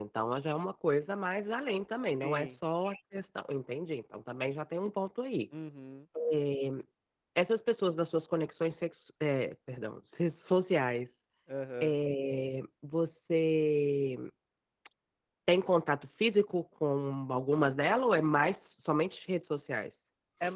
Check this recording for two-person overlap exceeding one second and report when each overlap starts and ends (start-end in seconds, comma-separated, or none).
none